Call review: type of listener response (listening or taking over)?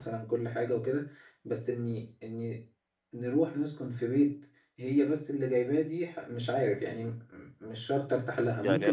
taking over